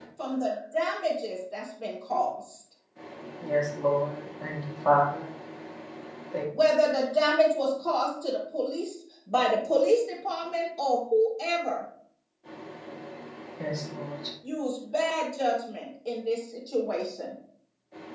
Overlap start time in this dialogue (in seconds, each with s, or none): none